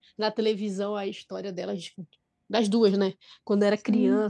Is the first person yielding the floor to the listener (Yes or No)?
No